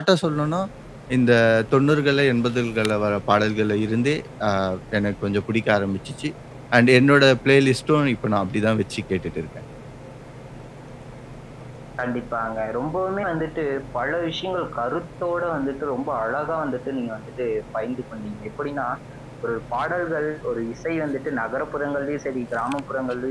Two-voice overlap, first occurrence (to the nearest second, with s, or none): none